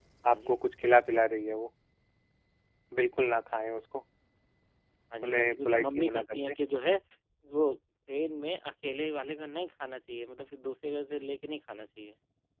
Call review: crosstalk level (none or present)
present